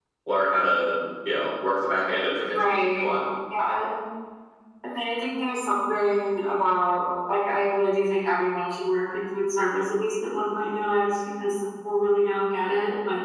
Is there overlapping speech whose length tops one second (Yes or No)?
No